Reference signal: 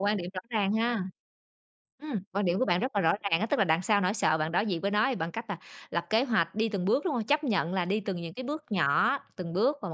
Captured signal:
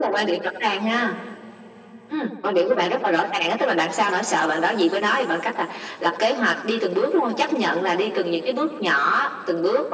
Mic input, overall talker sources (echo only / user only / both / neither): echo only